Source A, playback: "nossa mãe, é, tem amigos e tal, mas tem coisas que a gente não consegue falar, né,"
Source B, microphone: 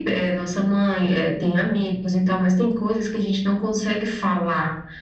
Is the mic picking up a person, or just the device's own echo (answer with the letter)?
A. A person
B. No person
B